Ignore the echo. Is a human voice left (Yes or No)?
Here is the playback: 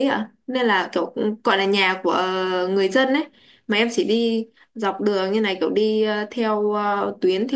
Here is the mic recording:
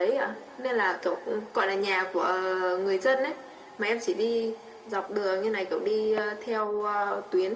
No